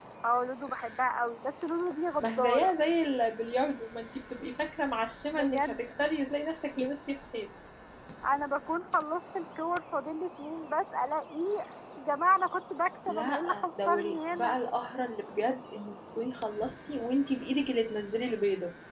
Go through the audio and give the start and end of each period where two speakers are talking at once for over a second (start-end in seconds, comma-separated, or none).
13.1-14.6